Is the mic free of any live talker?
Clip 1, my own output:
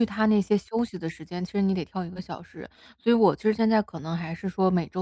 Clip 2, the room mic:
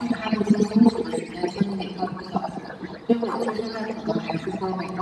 Yes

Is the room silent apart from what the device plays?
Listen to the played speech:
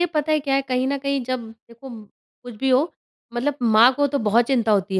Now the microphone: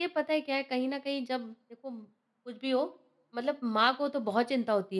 Yes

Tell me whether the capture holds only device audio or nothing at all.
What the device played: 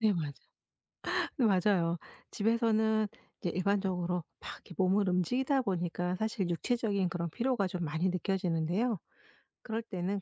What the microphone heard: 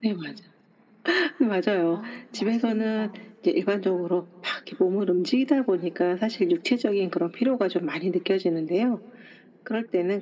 No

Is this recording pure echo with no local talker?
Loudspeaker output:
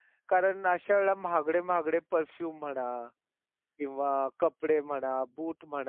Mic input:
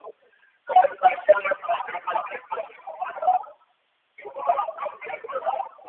Yes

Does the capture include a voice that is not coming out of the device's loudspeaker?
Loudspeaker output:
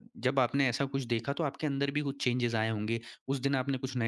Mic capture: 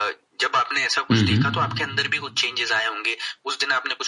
Yes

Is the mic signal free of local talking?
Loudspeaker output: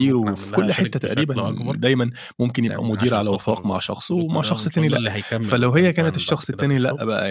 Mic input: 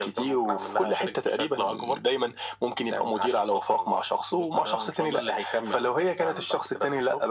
Yes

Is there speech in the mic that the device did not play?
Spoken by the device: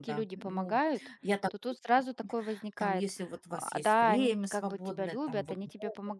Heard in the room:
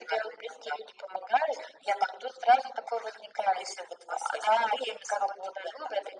No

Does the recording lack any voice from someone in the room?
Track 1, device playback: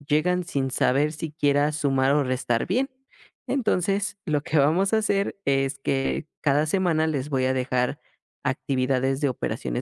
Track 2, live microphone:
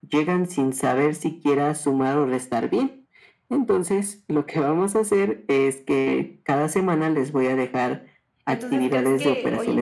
No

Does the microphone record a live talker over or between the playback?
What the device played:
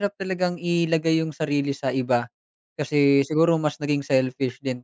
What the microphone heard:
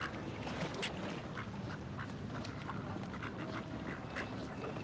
No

